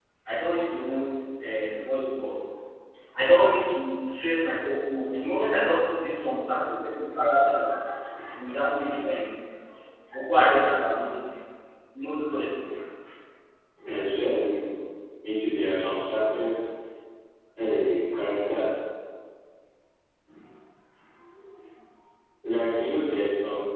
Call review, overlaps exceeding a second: none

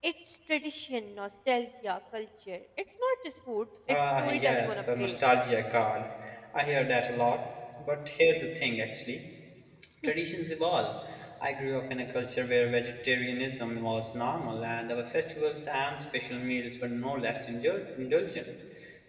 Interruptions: present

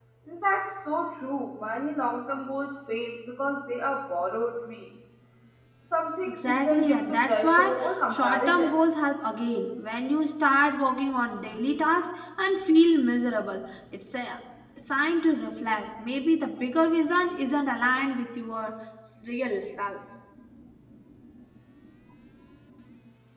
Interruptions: present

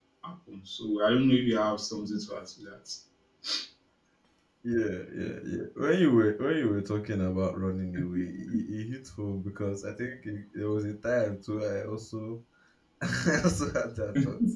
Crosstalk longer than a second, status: none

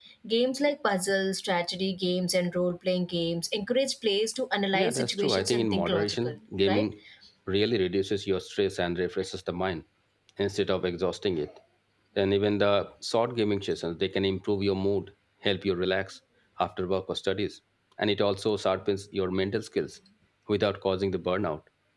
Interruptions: present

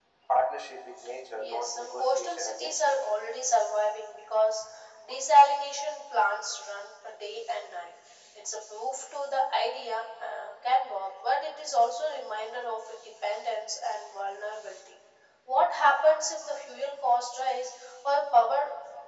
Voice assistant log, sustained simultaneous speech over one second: present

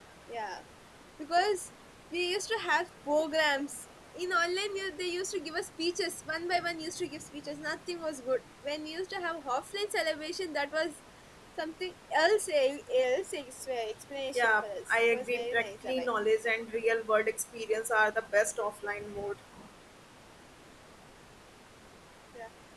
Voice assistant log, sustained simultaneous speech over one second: present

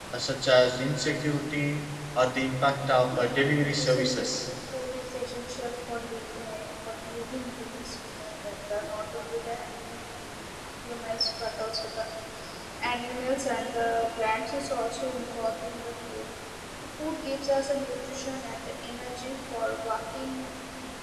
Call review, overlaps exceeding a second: present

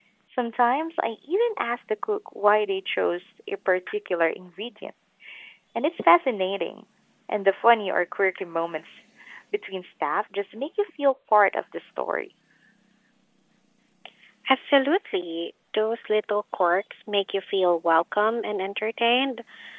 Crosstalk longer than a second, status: none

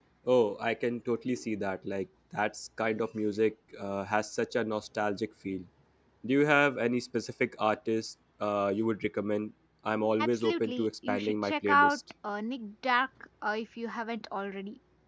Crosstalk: present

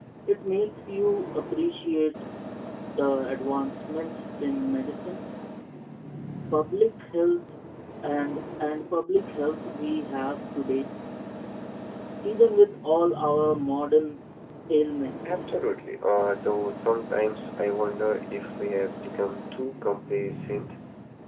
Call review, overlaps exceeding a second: none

